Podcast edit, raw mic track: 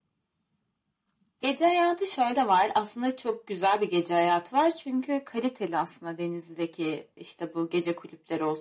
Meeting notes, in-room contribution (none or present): none